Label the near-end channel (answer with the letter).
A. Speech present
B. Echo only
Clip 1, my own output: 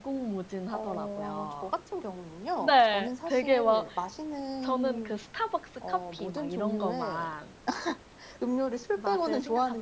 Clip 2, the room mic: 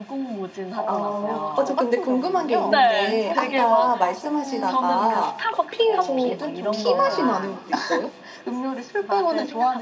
A